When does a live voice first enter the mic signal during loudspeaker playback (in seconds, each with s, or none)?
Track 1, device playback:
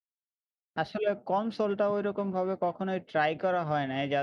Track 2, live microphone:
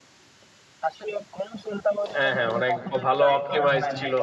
2.1 s